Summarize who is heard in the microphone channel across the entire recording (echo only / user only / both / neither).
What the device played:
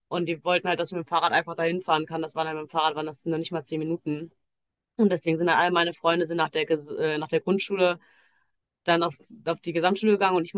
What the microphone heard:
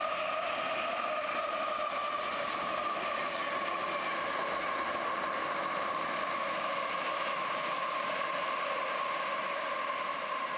neither